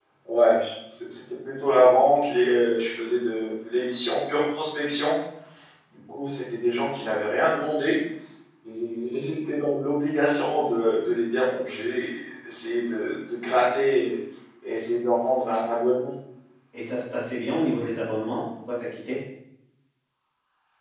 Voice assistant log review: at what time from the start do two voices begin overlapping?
none

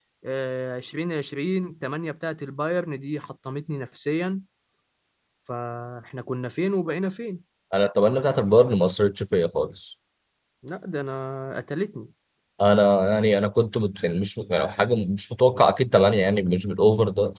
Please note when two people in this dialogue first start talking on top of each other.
none

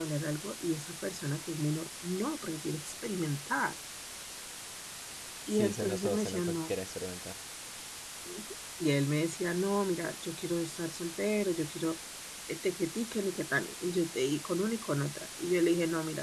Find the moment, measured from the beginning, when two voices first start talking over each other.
5.5 s

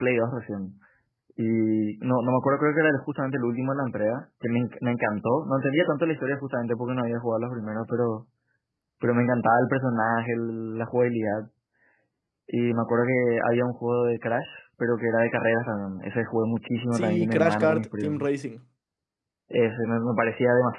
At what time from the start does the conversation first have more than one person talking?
16.9 s

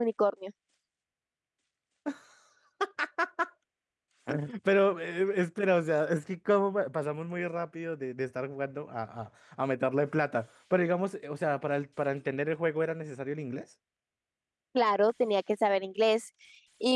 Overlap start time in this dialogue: none

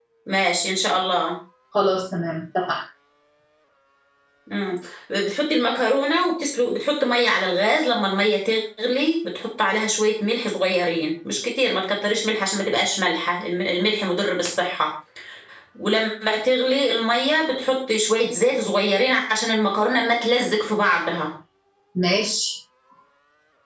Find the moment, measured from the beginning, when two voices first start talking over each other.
none

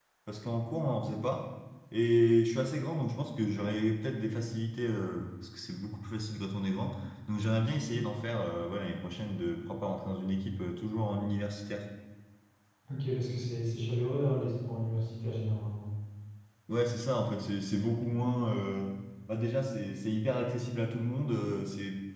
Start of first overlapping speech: none

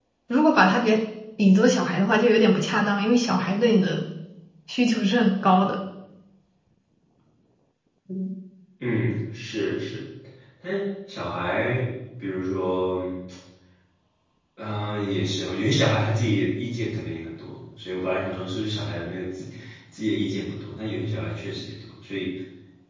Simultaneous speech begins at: none

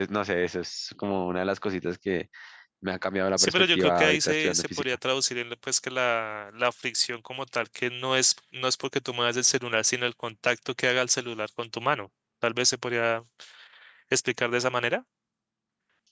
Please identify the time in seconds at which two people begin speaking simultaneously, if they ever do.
3.4 s

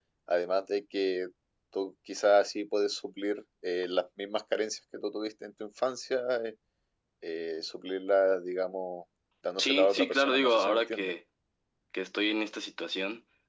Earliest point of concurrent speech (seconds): 9.6 s

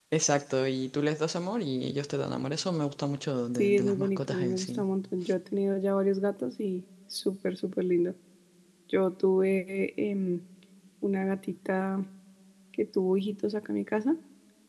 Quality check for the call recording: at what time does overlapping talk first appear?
3.5 s

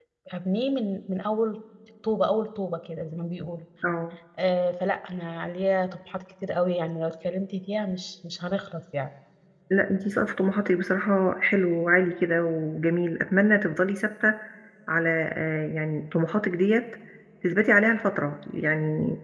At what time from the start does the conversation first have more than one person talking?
none

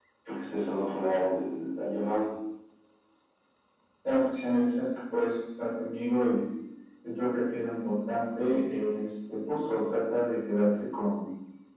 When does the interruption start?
none

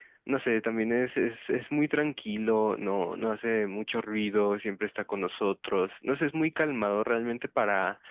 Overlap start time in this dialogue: none

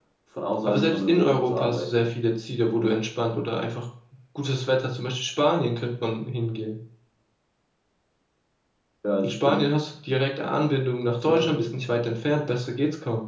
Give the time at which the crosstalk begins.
0.6 s

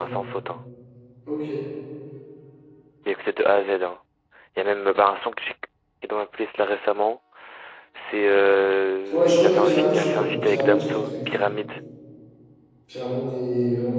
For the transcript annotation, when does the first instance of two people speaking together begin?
9.0 s

